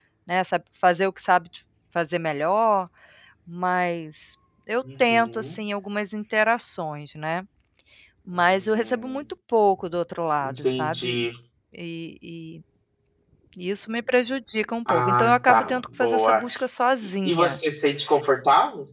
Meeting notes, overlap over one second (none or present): present